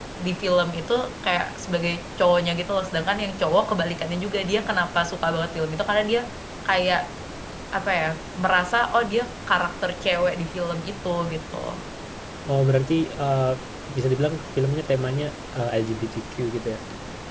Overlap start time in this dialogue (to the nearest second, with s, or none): none